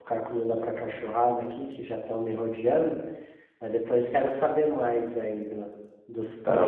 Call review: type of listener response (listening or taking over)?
taking over